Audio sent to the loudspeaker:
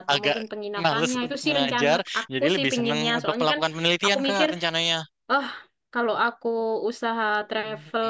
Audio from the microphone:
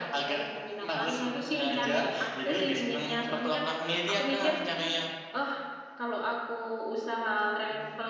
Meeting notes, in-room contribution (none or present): none